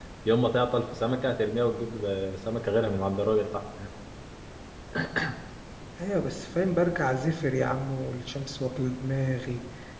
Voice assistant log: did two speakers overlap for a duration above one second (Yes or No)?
No